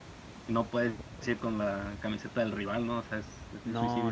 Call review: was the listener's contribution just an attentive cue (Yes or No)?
No